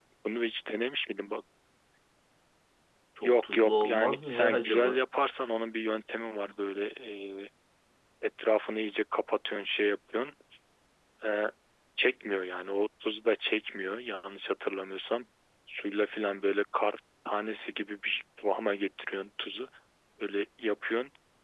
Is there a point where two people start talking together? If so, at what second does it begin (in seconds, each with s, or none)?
3.2 s